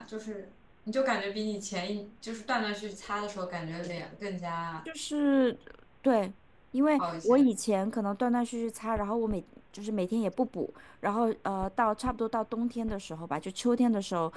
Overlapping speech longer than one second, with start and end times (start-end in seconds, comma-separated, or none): none